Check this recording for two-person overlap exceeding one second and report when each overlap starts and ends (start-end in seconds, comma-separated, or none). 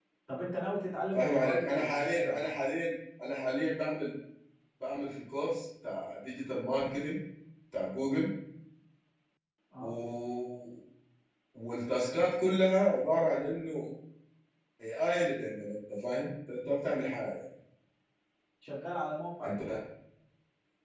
1.1-2.5